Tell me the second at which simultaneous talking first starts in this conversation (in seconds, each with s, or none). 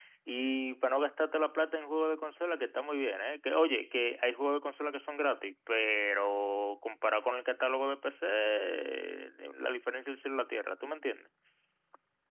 none